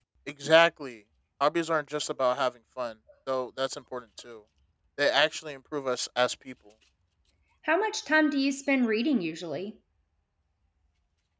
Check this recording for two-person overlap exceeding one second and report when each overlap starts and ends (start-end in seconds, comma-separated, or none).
none